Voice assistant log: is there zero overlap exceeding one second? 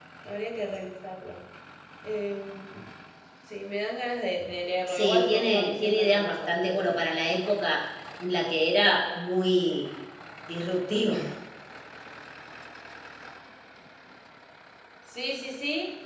No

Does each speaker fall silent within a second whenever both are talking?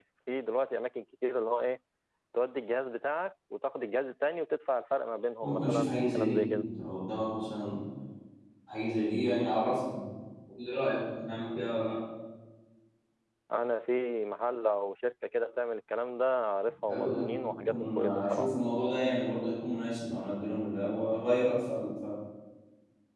No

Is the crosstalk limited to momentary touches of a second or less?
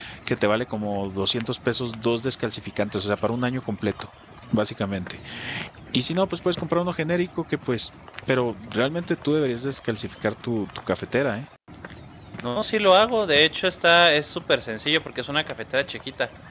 Yes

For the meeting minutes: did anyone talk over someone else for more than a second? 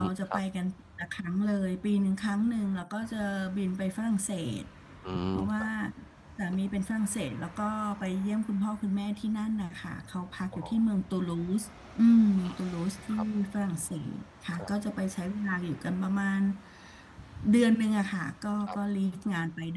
No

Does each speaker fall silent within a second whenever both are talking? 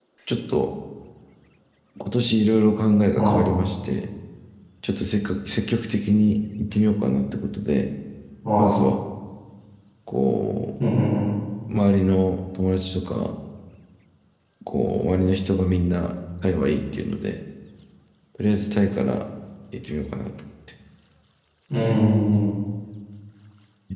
Yes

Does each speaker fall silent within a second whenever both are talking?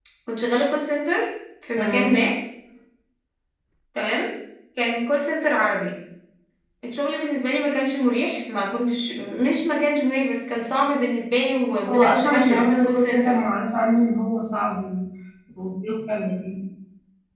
No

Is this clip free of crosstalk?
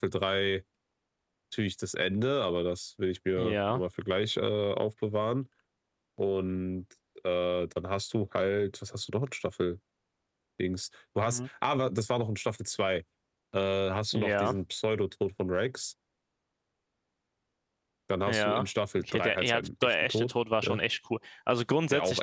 No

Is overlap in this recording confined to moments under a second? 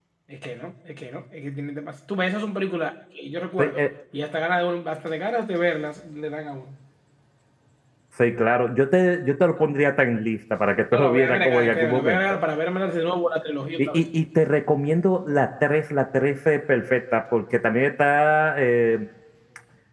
No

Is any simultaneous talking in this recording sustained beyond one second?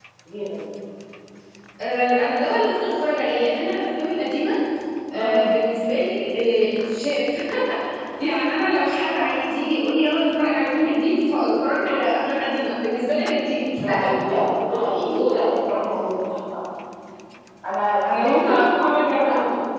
Yes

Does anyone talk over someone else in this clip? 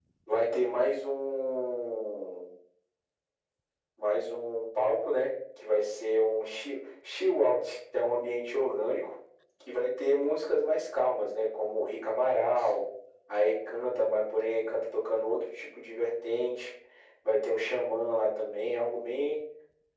No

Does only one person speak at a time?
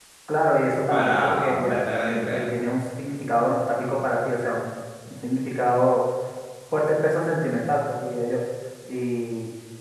No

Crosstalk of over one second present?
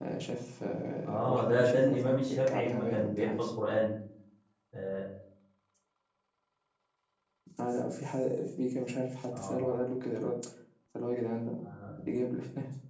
Yes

